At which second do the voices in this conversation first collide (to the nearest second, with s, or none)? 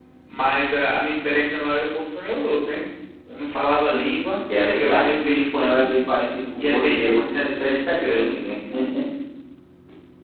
5 s